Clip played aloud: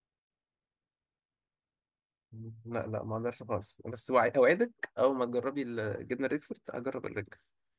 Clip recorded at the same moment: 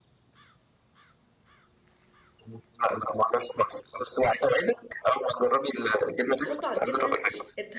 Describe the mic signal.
both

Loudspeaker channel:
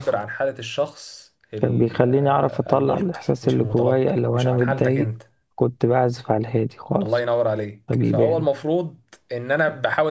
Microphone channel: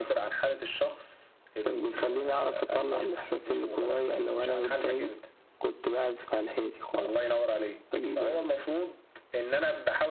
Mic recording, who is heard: echo only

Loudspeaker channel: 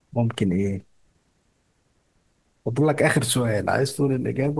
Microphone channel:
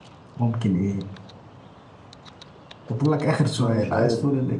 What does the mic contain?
both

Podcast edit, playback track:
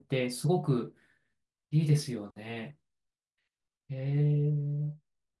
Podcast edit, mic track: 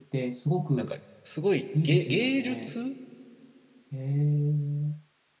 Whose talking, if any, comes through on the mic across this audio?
both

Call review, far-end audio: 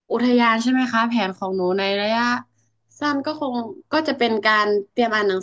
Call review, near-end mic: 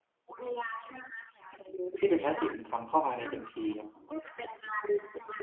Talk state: both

